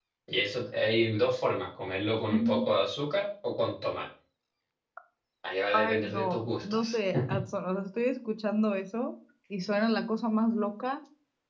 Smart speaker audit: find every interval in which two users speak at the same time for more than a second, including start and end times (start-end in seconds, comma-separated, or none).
5.7-7.0